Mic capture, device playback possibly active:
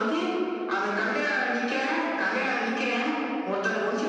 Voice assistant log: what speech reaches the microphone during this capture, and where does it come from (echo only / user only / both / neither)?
echo only